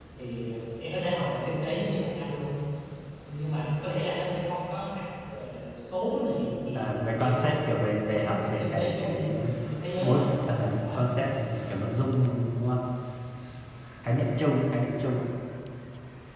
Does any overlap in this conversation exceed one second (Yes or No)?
Yes